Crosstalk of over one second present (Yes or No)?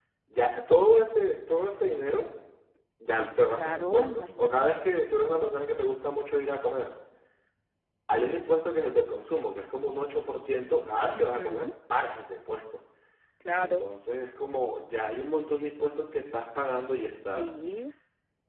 Yes